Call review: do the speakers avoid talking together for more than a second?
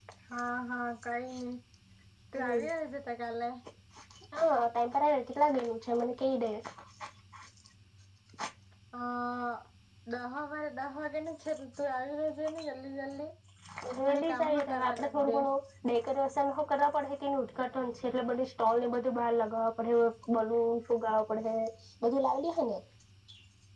No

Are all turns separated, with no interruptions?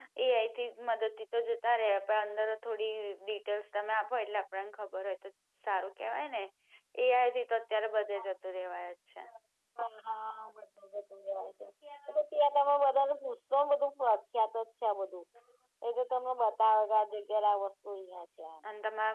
Yes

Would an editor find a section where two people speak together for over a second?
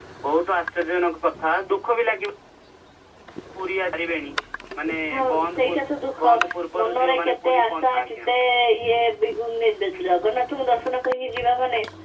Yes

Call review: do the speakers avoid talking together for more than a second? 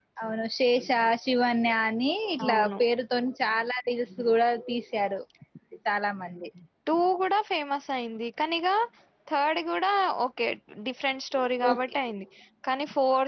Yes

